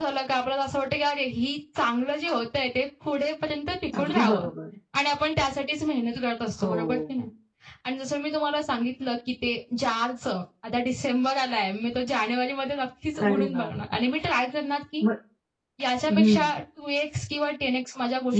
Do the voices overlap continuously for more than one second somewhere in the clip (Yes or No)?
No